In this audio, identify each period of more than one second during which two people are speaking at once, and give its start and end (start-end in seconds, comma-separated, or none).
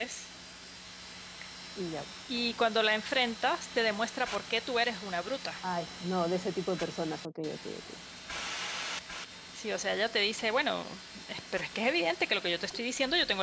none